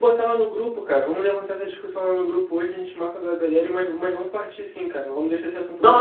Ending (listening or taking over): taking over